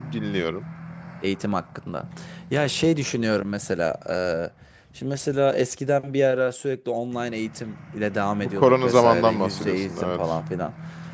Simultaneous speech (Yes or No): Yes